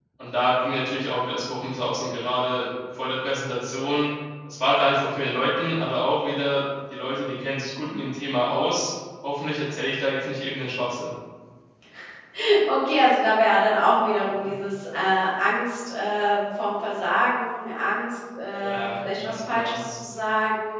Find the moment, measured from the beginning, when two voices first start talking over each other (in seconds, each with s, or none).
18.6 s